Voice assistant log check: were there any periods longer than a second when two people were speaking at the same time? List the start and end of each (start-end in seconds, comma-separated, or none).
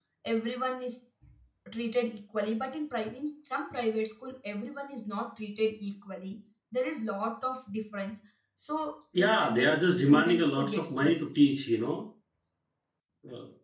9.2-11.3